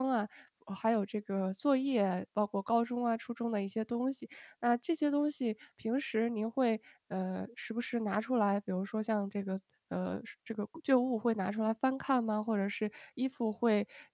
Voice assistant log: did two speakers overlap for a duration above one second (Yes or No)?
No